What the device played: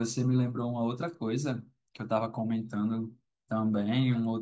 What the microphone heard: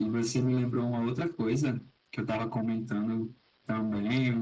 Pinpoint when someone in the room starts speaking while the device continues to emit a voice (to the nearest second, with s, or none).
none